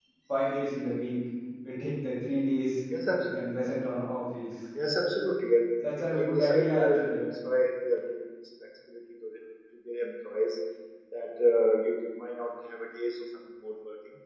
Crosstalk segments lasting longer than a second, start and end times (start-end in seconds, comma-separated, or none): 6.0-7.2